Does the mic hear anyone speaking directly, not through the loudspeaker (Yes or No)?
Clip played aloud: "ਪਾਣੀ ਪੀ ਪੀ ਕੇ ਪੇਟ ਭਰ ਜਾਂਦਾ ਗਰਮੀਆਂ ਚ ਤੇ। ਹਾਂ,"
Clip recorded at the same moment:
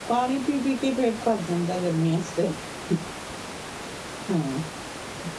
No